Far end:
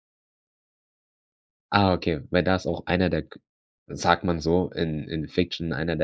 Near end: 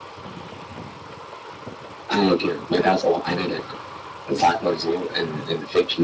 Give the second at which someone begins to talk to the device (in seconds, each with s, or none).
none